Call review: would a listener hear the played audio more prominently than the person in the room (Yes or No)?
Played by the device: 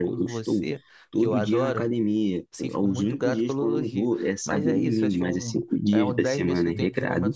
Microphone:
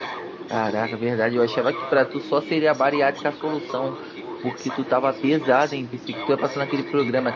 No